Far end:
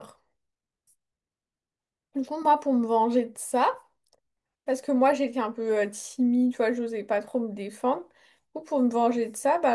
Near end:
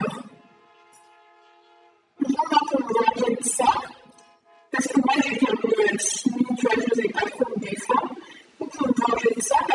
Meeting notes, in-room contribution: none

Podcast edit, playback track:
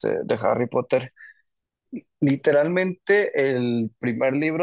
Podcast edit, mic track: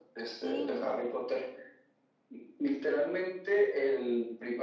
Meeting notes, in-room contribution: present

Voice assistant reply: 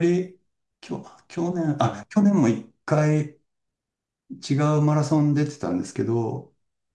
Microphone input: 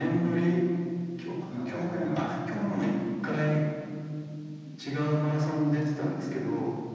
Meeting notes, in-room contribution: present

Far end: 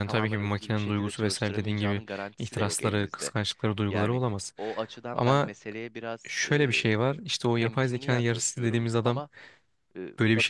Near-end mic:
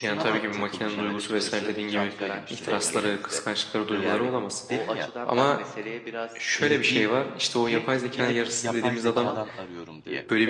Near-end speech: present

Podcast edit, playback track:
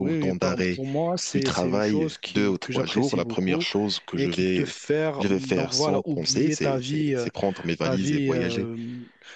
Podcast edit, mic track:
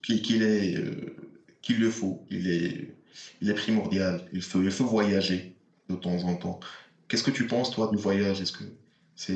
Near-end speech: present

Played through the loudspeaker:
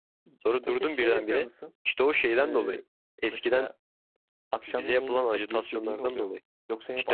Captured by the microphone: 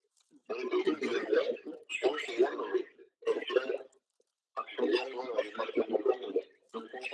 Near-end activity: present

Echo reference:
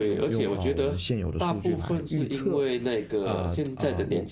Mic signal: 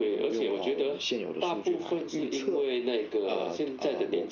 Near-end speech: none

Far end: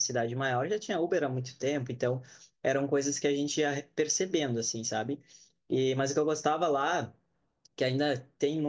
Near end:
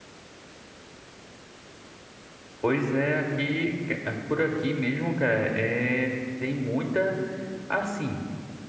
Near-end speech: present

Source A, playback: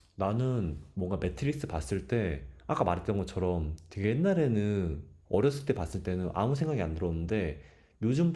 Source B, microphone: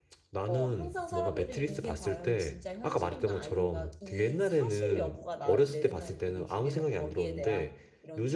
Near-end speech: present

